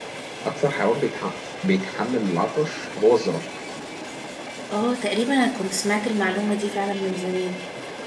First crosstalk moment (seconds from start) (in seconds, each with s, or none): none